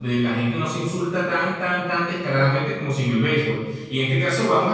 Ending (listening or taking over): listening